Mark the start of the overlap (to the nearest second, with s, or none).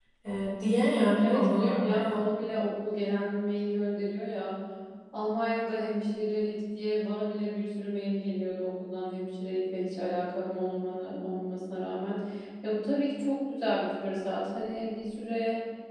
1 s